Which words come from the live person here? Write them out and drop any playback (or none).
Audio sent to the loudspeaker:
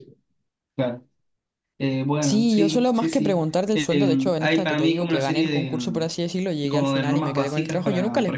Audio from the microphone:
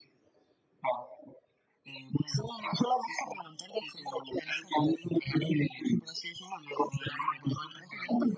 none